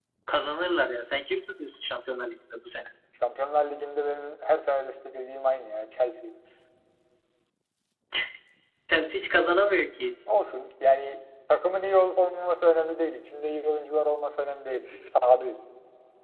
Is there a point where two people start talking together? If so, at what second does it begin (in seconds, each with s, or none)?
none